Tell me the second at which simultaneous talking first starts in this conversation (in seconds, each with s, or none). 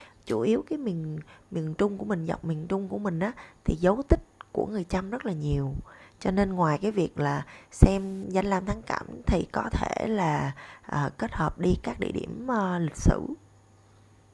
none